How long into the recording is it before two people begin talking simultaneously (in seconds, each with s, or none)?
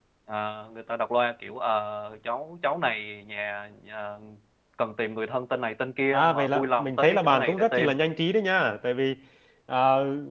6.1 s